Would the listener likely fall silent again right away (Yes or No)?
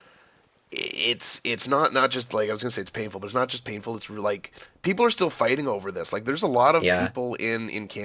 Yes